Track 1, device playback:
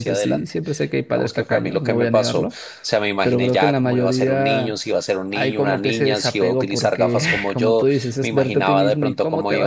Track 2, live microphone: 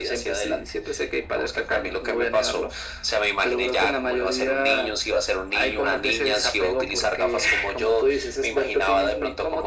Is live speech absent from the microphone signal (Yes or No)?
Yes